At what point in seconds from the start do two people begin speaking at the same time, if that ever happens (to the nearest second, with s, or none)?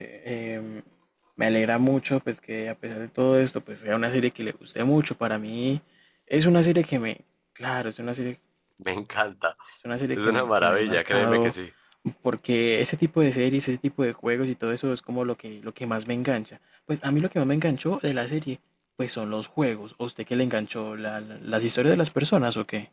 10 s